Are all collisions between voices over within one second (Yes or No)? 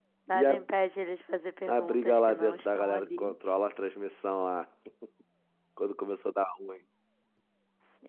No